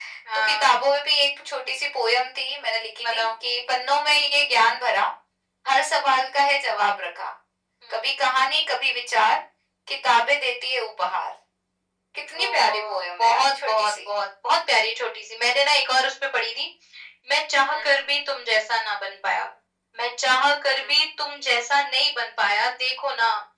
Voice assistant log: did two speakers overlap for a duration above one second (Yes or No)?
Yes